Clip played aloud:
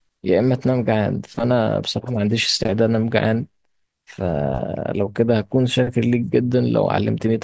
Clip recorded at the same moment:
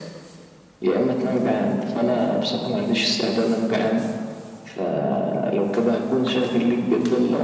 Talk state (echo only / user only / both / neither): echo only